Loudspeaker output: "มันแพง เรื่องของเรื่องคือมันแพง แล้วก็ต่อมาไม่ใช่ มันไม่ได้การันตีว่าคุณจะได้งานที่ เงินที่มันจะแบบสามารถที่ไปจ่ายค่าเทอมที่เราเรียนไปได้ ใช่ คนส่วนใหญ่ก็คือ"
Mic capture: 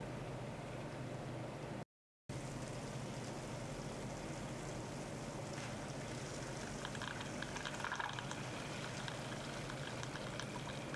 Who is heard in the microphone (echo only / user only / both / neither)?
neither